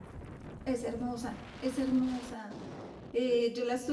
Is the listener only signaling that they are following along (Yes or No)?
Yes